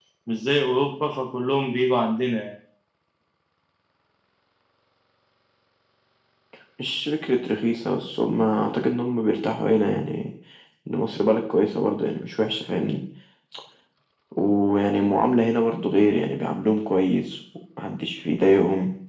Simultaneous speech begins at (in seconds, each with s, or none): none